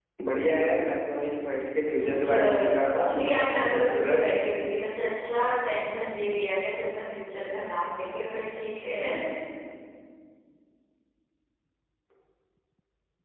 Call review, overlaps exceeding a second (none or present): present